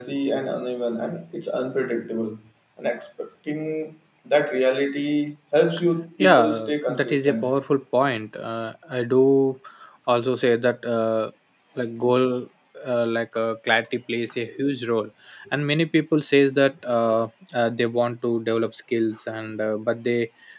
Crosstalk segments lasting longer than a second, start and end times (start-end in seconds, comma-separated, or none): 6.2-7.5